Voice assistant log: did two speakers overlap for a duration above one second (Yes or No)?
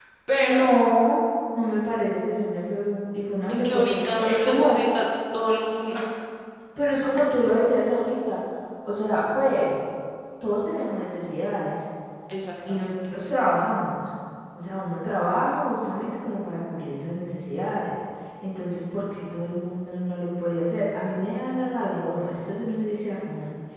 Yes